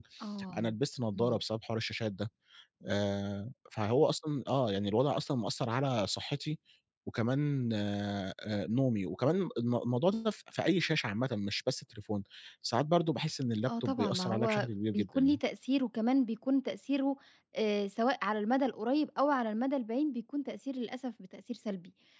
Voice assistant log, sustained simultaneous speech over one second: present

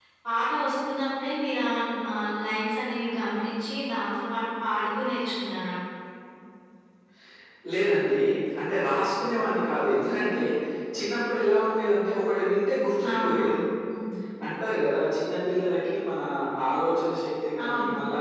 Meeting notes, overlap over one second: none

